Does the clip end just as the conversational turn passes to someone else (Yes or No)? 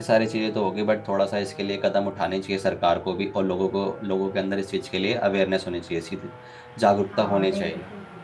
Yes